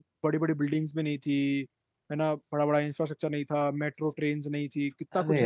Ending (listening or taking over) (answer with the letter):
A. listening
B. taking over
B